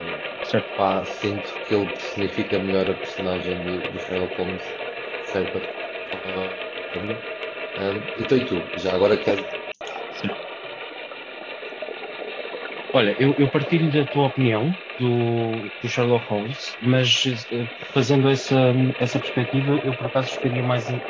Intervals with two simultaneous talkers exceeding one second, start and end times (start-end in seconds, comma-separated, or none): none